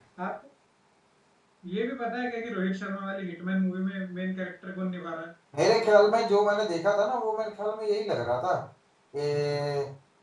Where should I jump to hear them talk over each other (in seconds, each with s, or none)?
none